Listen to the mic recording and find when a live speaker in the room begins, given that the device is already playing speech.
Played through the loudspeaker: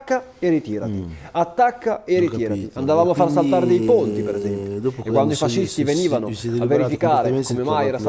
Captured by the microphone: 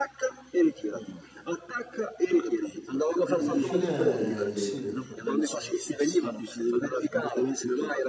3.4 s

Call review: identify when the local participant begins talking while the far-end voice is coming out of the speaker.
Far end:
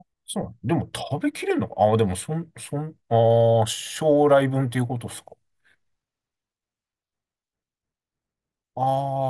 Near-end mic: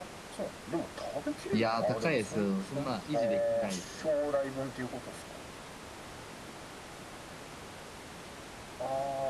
1.5 s

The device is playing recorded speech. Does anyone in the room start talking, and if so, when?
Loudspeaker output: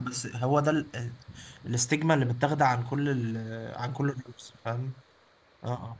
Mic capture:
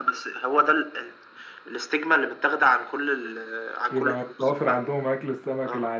3.9 s

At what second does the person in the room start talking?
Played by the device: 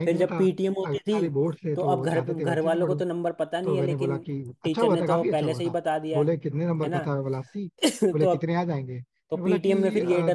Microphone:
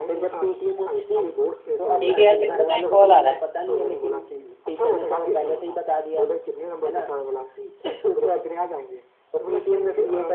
2.0 s

